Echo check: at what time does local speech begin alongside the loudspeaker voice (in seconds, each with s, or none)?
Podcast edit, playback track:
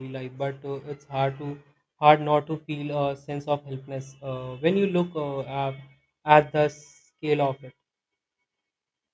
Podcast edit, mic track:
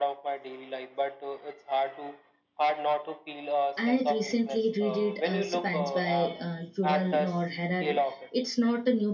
3.8 s